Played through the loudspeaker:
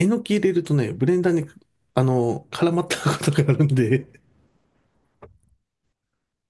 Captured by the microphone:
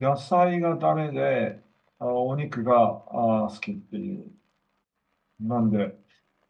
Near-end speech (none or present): present